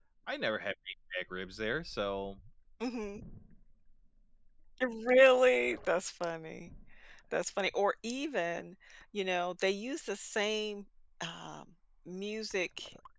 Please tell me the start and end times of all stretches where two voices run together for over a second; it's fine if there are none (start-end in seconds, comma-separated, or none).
none